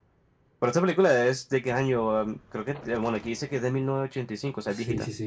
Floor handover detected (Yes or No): Yes